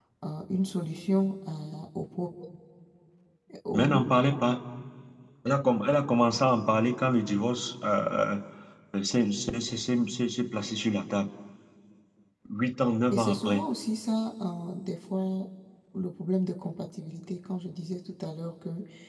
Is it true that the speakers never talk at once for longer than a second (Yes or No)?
Yes